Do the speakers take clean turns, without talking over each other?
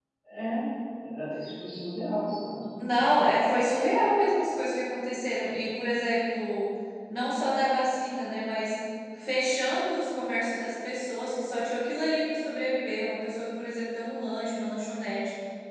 Yes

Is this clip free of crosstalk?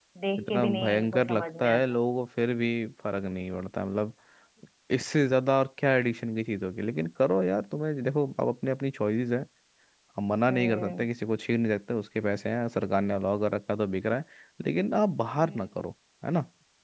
No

